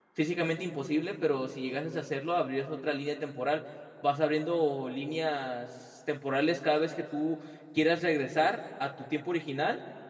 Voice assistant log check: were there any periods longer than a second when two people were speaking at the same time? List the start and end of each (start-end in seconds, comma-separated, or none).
none